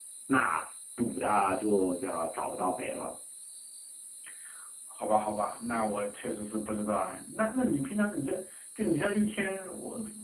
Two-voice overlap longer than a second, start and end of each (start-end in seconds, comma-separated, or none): none